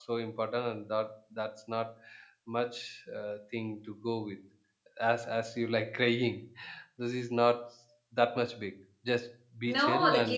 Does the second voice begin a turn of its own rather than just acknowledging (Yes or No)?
Yes